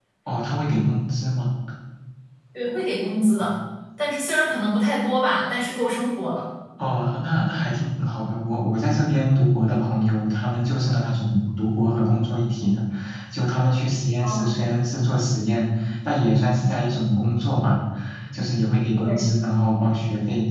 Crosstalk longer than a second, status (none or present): none